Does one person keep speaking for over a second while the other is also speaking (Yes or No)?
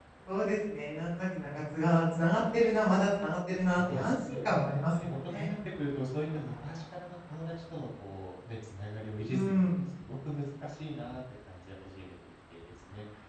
Yes